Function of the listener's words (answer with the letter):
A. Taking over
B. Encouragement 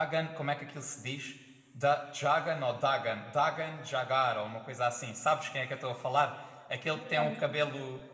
B